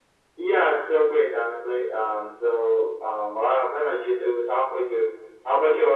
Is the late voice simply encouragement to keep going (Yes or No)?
No